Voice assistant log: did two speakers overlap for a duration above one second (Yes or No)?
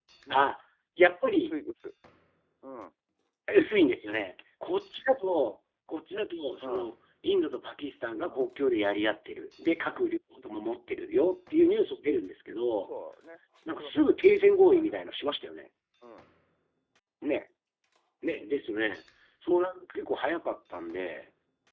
No